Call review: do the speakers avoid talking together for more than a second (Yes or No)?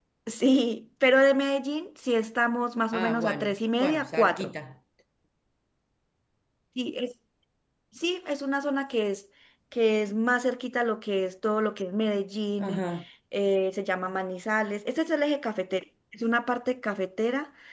No